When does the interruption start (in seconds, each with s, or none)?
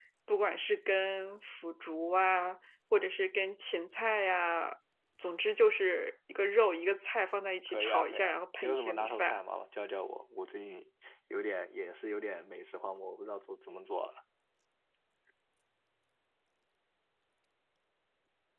7.7 s